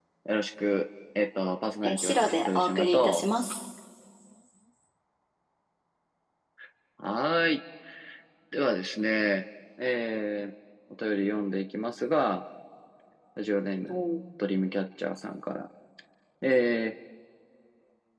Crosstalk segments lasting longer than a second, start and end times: 1.8-3.2

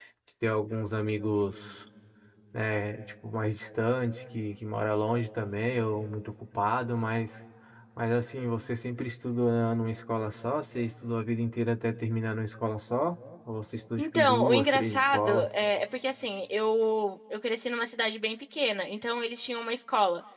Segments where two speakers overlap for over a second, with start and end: 14.0-15.5

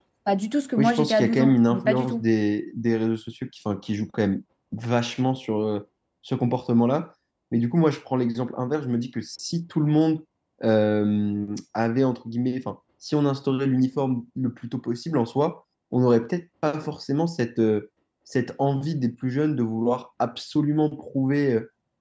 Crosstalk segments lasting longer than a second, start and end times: 0.8-2.2

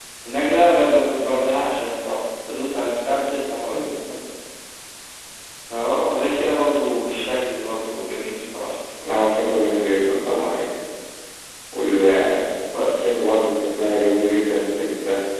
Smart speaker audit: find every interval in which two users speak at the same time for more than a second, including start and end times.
none

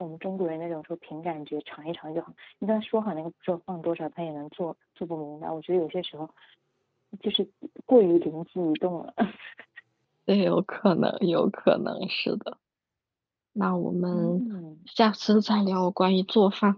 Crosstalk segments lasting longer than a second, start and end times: none

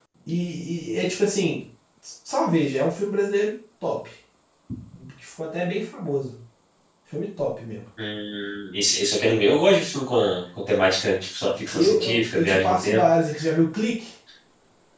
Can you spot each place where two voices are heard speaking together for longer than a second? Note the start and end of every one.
11.7-13.0

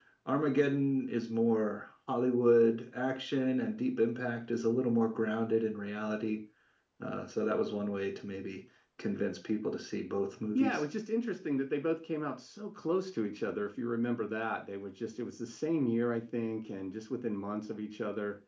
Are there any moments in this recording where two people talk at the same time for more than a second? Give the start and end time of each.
none

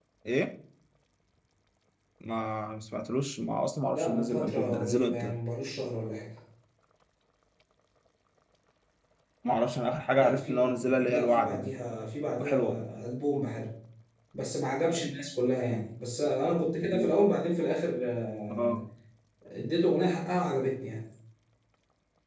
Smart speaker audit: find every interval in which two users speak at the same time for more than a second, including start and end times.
3.9-5.3, 10.2-11.7

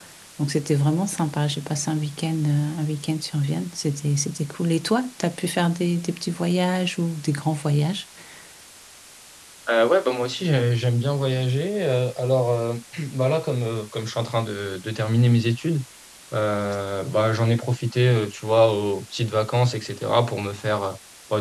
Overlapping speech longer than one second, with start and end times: none

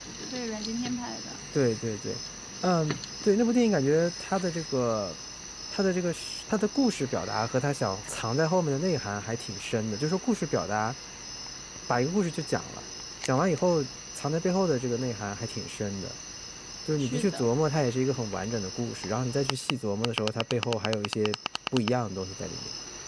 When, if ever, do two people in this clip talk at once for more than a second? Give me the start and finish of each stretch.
none

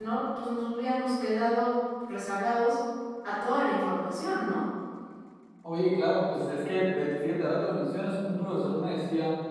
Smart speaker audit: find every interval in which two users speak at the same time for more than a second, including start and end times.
none

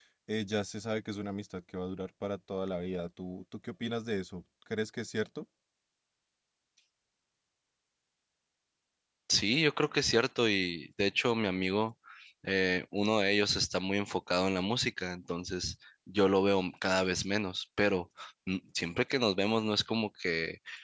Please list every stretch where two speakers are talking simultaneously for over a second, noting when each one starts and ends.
none

